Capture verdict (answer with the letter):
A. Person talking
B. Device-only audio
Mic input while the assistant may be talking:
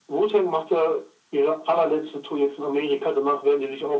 B